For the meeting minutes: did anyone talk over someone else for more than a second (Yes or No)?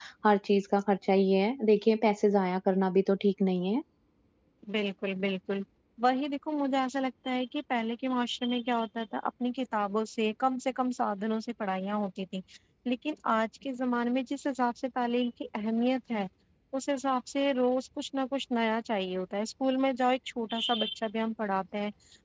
No